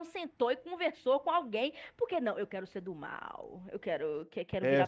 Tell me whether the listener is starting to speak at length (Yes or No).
Yes